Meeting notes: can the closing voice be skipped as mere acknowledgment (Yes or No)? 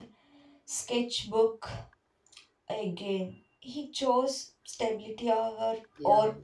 No